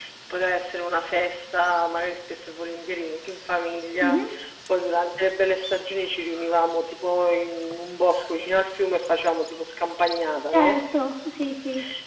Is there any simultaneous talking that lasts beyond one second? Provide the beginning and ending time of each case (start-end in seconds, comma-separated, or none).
none